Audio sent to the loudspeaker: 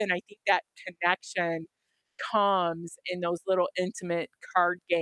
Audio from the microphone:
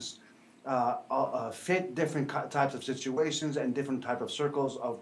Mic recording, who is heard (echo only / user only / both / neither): user only